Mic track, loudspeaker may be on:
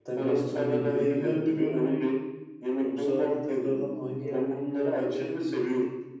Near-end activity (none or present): present